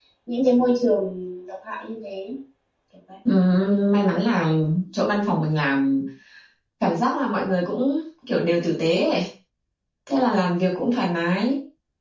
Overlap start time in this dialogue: none

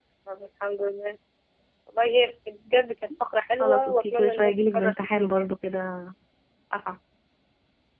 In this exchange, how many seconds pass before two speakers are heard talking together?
3.6 s

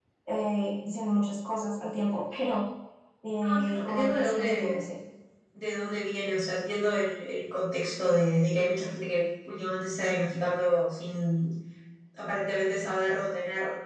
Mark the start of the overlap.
3.4 s

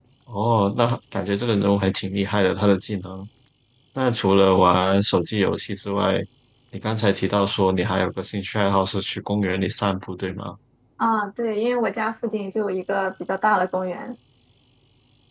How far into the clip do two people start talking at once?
none

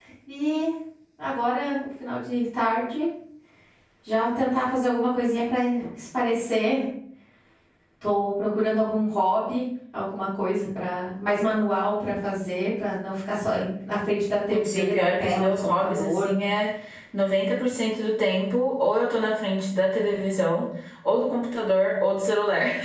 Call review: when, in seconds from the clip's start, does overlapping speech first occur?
14.5 s

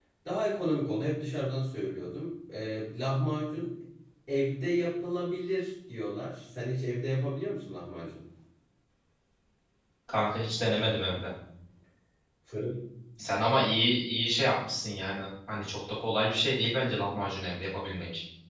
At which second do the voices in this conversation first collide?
none

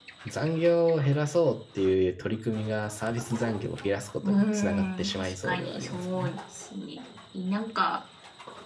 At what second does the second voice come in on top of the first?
4.2 s

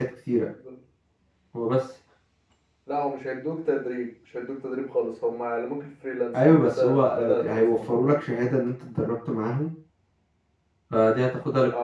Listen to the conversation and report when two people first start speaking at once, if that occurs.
6.3 s

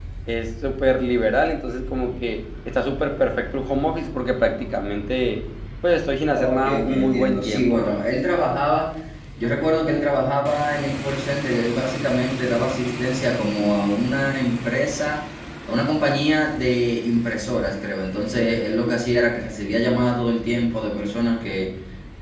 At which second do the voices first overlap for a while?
6.3 s

